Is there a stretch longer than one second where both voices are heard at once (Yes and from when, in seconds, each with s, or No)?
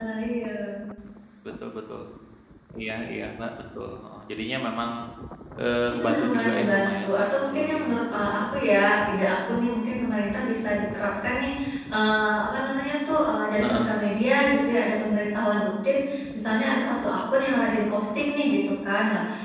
Yes, from 5.9 s